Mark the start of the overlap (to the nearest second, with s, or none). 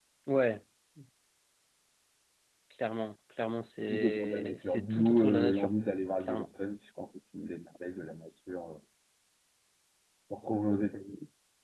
4 s